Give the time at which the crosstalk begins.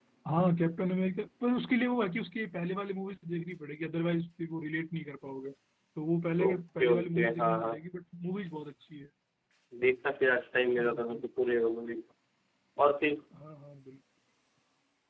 6.4 s

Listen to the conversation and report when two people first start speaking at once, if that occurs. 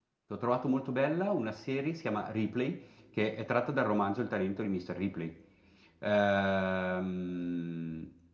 none

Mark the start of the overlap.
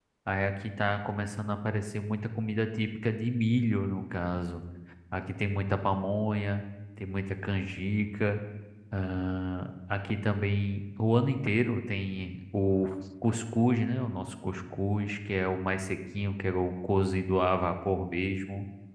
none

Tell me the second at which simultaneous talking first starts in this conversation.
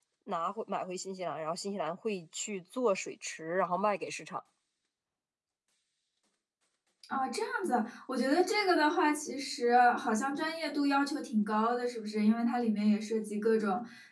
none

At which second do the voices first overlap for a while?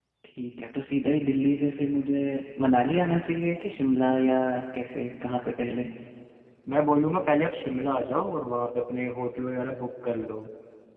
none

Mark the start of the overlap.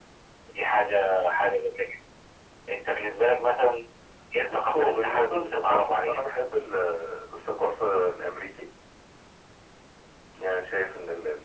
4.5 s

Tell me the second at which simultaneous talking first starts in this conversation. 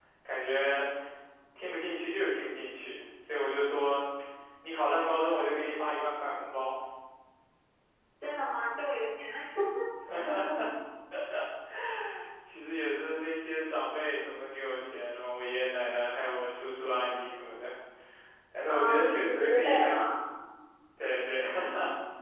18.7 s

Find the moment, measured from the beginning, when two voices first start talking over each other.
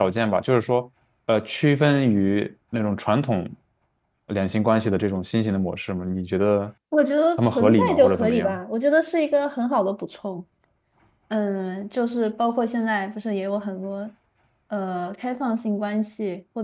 7.4 s

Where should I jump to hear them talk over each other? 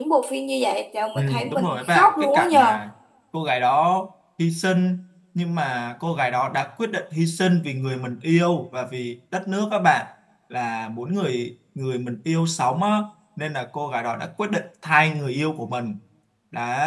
1.2 s

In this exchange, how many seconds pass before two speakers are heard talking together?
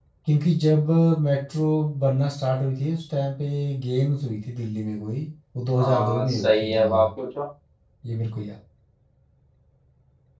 5.7 s

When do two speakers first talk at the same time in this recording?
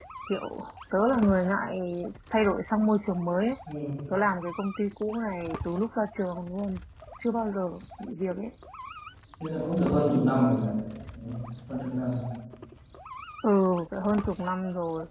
none

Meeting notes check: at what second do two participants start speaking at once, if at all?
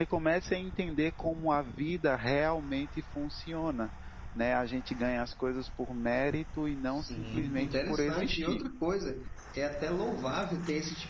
6.9 s

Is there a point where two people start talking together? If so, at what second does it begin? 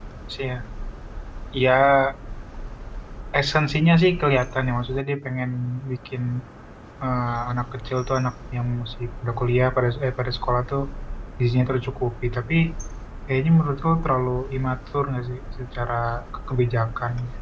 none

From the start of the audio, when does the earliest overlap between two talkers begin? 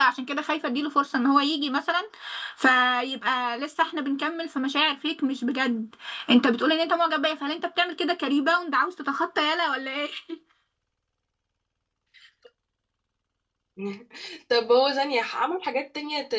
none

